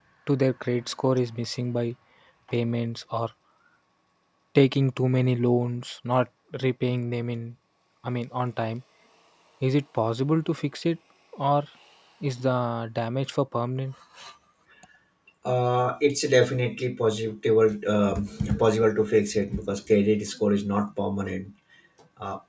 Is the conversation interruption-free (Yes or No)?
Yes